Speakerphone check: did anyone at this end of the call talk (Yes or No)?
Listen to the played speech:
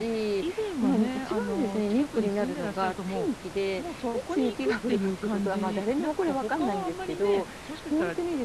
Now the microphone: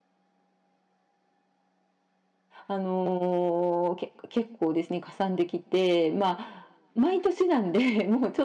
Yes